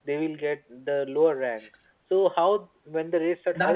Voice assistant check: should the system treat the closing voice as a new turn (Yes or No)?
Yes